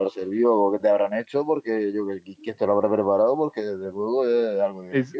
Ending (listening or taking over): taking over